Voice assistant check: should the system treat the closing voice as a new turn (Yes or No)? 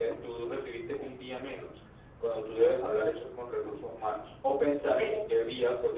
No